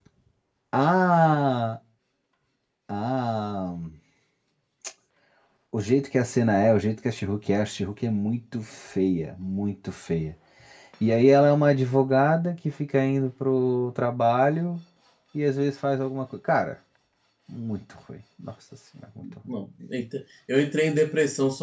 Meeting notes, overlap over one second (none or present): none